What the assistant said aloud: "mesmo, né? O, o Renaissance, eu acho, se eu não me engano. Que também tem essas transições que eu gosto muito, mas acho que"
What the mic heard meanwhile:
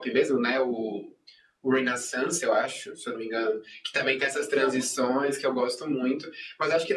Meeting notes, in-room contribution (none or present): present